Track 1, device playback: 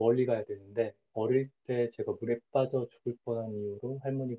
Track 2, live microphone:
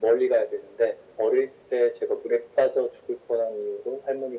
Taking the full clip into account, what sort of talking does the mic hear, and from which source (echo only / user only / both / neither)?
echo only